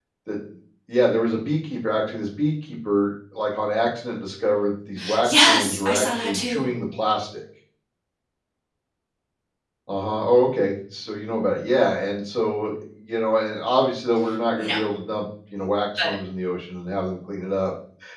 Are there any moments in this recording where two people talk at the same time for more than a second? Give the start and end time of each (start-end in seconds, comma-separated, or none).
5.2-6.7